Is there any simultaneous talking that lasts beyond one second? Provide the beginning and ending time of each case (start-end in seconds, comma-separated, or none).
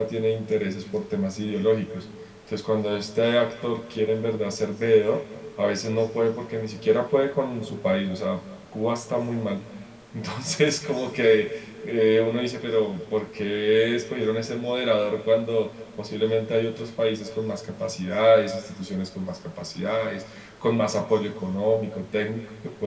none